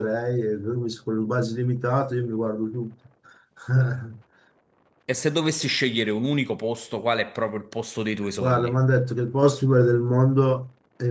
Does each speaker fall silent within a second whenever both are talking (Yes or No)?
Yes